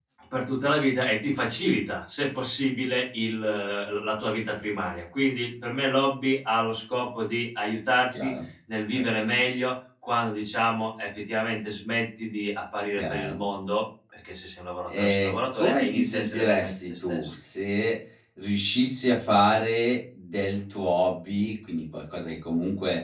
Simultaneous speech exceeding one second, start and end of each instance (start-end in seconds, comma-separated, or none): 15.0-17.3